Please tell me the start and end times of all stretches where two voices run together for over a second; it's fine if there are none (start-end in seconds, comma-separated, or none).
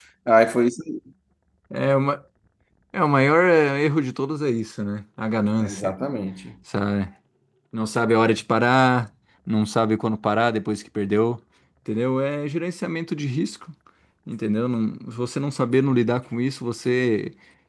none